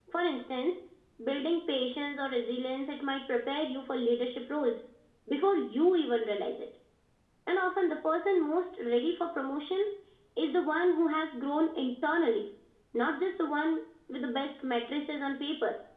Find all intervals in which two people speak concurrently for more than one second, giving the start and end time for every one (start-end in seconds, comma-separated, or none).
none